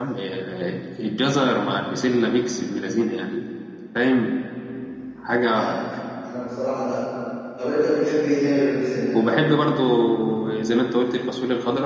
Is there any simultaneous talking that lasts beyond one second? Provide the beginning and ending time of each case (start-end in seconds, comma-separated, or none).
none